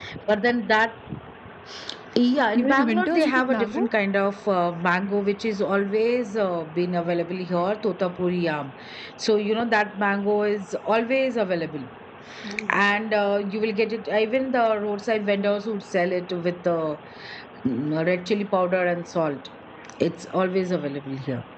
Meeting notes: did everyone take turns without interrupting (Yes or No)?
No